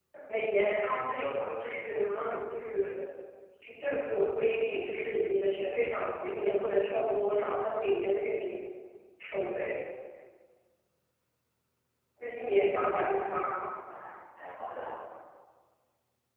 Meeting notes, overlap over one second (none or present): present